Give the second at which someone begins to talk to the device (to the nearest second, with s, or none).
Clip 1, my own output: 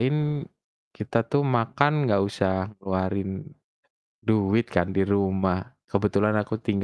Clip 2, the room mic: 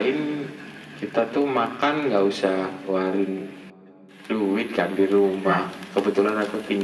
5 s